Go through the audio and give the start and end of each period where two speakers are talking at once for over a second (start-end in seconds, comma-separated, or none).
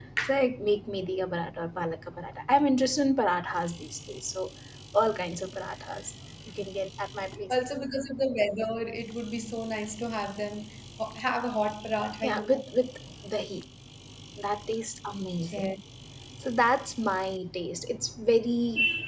none